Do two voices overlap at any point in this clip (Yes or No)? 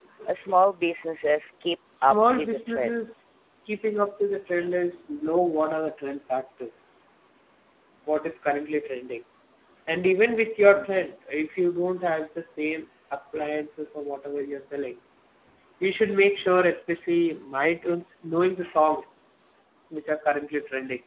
Yes